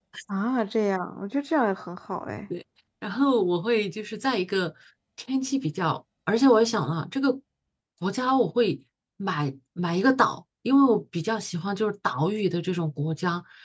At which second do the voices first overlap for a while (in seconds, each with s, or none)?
none